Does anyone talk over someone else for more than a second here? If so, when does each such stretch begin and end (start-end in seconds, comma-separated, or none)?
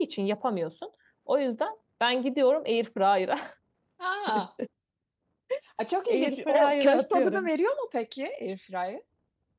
6.1-7.5